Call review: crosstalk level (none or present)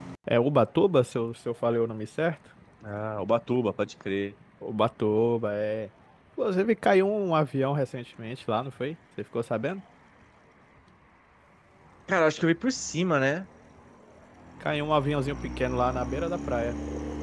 none